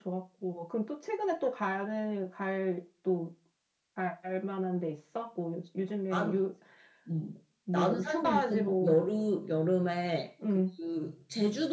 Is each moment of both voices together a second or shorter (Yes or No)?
No